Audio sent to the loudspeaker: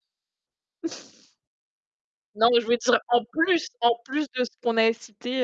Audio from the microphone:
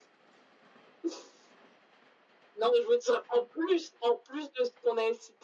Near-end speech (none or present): none